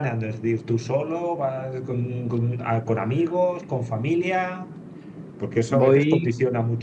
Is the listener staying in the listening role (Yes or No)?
Yes